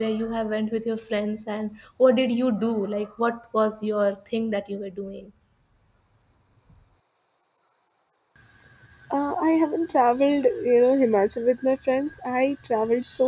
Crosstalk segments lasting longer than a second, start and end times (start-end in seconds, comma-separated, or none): none